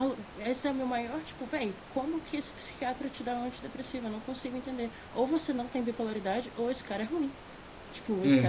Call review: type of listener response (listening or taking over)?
taking over